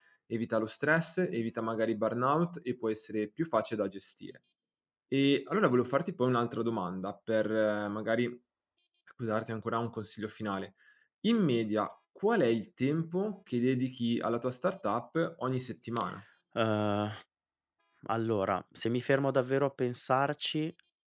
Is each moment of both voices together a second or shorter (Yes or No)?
Yes